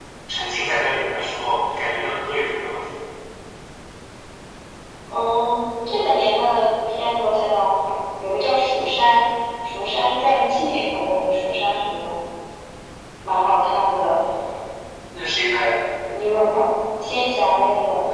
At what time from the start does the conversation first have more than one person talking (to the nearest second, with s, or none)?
none